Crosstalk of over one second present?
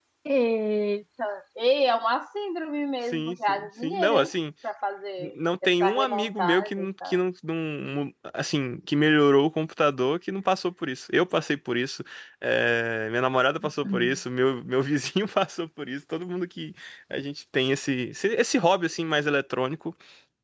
Yes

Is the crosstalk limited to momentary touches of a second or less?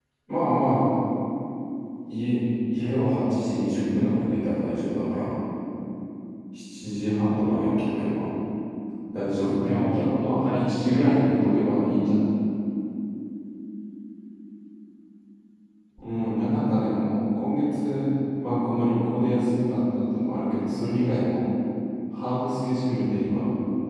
No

